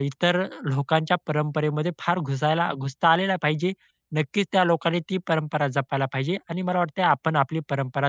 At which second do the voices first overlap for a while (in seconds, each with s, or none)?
none